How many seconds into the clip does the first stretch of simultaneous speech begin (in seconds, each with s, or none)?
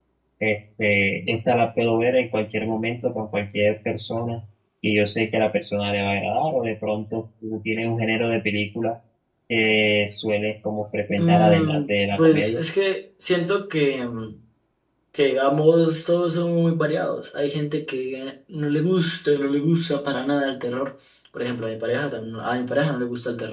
11.2 s